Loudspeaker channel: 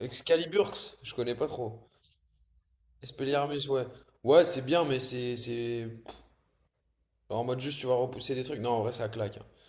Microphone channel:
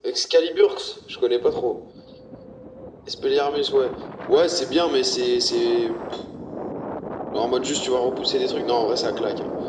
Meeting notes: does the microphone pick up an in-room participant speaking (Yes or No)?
No